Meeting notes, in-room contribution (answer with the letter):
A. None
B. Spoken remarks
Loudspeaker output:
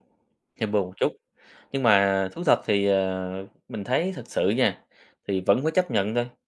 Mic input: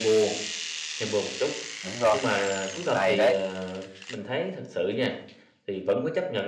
B